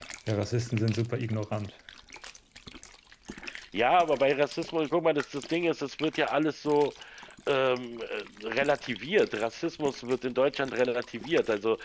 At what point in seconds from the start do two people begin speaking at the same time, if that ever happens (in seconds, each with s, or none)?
none